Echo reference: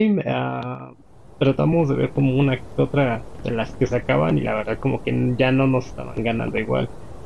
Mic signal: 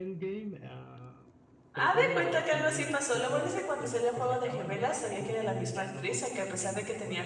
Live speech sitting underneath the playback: No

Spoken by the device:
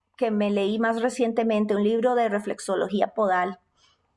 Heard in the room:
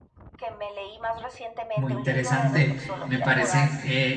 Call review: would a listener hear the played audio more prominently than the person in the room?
No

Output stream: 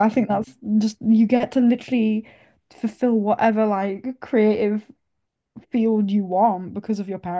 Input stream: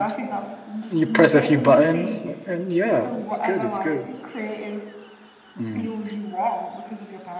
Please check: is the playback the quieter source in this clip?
Yes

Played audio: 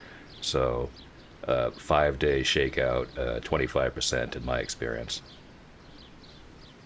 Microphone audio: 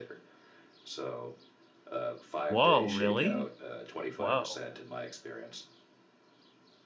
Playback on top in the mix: No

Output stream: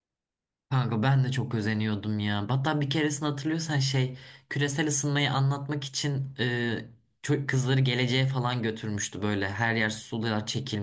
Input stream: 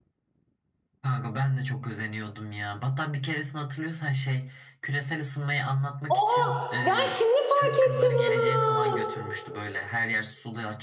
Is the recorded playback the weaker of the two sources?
Yes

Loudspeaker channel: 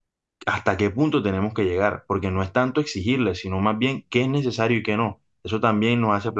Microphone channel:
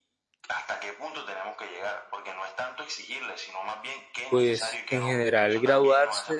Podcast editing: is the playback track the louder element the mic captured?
No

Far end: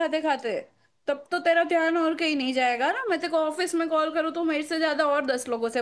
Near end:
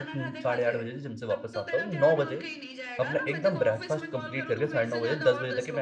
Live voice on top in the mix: Yes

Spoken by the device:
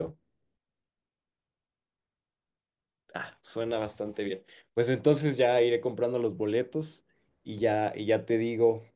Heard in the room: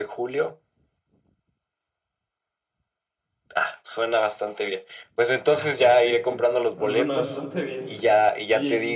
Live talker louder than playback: No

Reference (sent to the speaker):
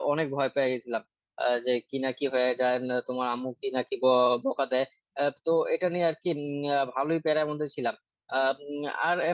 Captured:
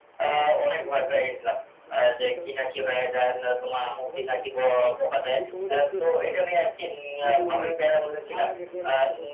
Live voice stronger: No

